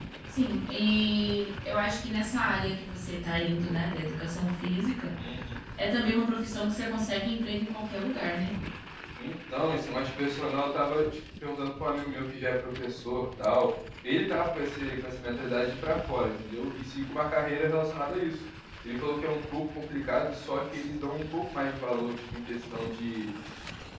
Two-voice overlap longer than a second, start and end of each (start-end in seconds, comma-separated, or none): none